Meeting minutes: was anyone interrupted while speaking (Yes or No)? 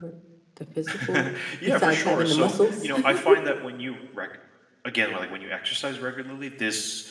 Yes